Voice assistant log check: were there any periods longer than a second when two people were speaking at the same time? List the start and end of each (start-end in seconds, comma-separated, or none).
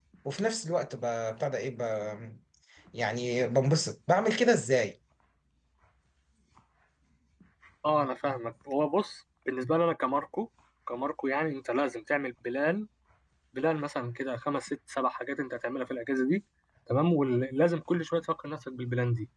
none